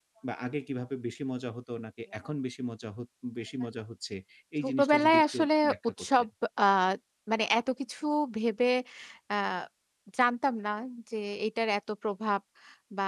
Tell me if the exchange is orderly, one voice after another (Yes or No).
No